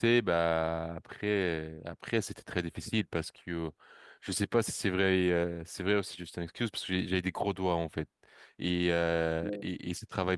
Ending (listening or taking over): listening